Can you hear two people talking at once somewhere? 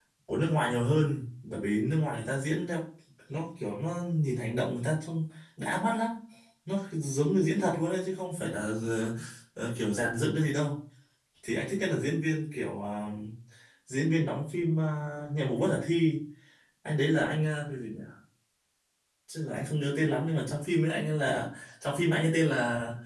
No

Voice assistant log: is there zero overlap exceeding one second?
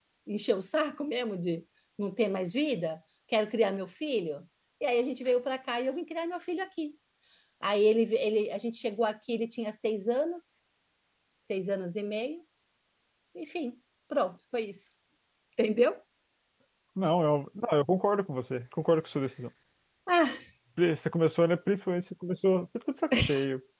Yes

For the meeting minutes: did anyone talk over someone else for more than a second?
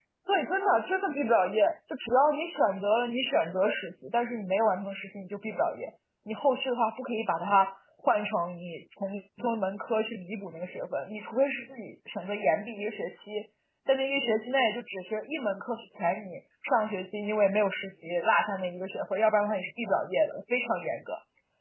No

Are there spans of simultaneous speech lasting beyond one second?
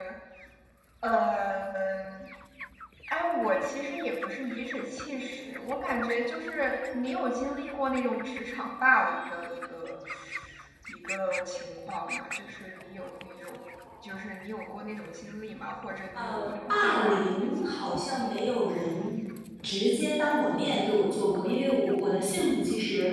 Yes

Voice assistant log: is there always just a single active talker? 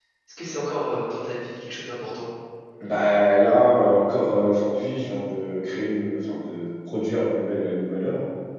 Yes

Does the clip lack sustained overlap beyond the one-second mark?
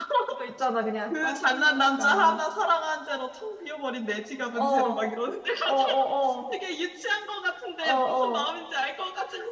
No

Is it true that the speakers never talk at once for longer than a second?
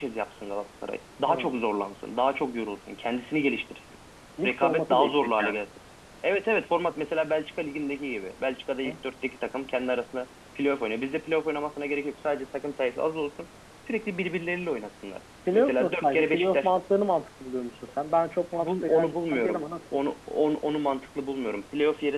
No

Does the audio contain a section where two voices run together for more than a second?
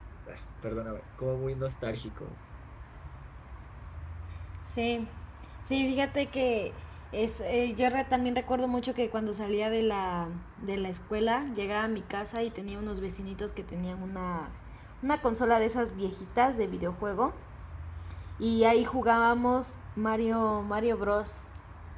No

